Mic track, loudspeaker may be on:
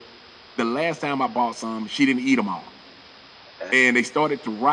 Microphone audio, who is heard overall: both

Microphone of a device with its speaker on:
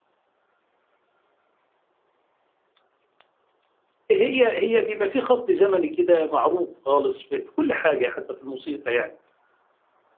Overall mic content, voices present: user only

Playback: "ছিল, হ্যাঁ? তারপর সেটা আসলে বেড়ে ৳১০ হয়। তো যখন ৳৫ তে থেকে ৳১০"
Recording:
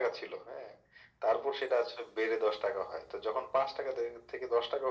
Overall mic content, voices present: echo only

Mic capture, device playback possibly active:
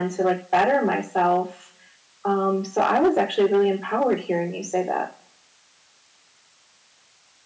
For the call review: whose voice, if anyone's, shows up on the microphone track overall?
echo only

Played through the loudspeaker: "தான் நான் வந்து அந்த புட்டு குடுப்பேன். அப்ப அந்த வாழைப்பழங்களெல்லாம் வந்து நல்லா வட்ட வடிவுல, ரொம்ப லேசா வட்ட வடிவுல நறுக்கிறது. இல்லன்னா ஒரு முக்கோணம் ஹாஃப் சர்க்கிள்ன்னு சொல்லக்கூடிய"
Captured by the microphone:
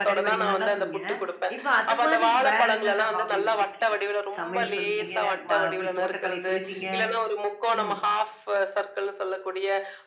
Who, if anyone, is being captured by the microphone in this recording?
both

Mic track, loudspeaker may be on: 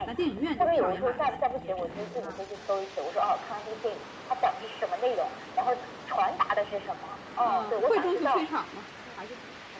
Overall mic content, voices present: both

